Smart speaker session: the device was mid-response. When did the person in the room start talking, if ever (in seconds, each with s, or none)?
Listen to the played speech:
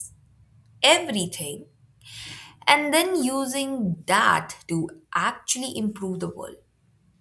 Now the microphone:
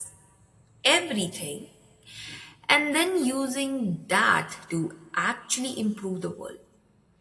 none